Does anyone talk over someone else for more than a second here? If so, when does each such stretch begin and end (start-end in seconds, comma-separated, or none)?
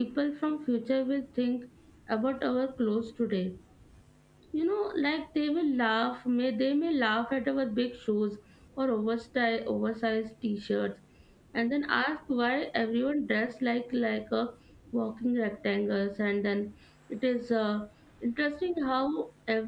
none